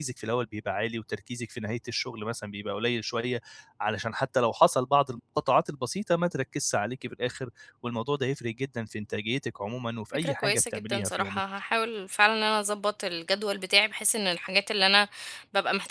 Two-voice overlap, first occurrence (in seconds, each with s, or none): 10.1 s